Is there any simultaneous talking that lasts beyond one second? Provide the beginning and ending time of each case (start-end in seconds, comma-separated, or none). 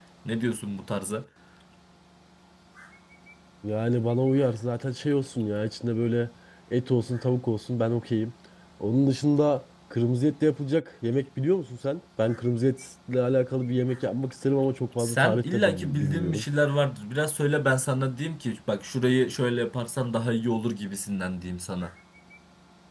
15.0-16.4